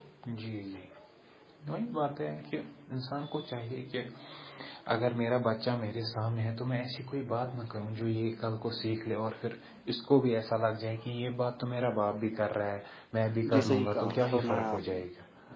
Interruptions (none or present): present